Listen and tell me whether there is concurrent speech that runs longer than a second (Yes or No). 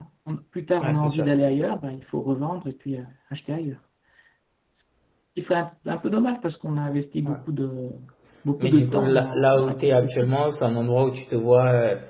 Yes